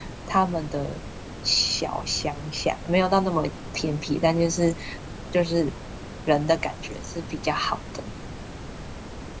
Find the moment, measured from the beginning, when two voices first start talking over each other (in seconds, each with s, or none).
none